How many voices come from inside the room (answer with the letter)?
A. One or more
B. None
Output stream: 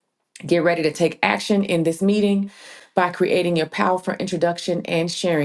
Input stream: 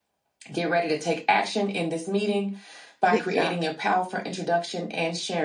A